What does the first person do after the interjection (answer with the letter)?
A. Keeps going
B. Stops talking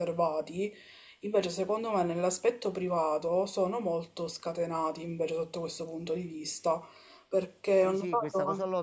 B